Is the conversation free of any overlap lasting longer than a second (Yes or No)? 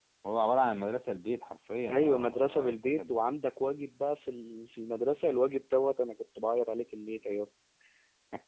No